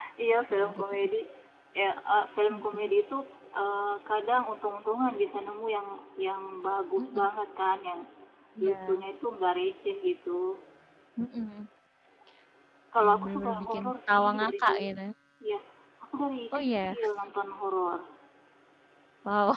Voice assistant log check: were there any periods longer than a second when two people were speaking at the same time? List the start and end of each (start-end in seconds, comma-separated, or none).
13.1-14.9